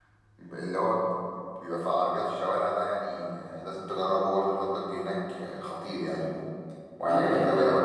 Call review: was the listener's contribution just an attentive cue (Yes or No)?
No